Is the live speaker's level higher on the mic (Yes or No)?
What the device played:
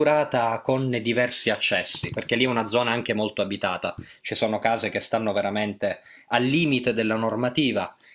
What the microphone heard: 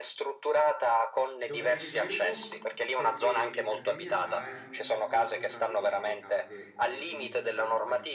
No